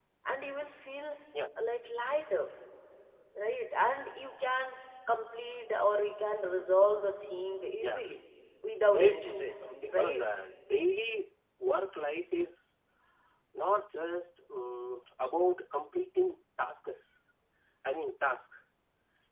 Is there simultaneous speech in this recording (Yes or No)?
Yes